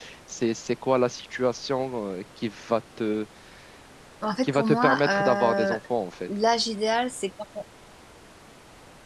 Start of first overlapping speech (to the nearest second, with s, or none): 4 s